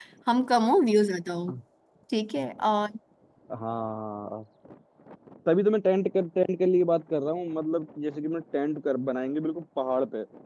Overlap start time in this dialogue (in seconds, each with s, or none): none